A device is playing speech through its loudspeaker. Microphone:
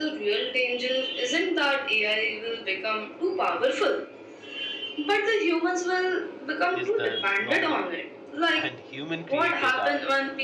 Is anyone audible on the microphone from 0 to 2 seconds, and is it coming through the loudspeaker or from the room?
echo only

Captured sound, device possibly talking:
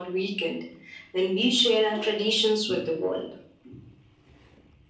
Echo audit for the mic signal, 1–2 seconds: echo only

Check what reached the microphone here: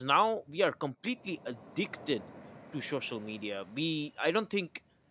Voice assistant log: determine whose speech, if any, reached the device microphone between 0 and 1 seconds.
user only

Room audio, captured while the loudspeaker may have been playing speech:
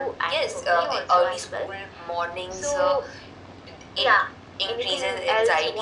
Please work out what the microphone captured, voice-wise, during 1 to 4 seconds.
echo only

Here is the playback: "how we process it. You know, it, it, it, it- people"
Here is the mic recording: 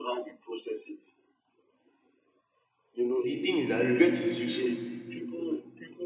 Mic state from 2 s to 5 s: both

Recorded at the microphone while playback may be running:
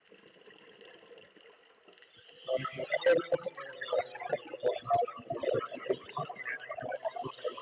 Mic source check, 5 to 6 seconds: echo only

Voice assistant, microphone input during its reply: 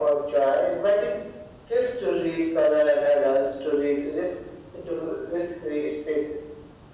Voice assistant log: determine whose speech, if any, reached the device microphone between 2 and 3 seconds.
echo only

